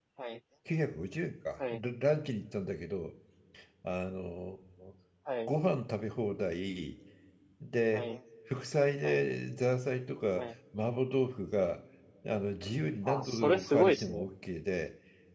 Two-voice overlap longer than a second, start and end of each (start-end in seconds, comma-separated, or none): 13.0-14.2